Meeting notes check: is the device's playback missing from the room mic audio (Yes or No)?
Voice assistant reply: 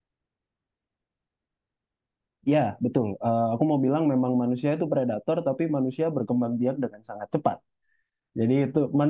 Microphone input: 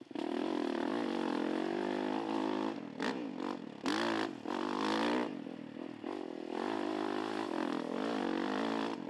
Yes